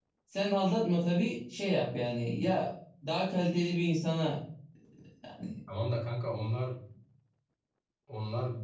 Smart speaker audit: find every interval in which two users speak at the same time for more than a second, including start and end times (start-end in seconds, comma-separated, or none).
none